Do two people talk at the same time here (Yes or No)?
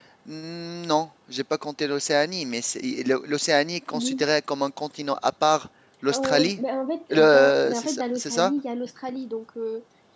Yes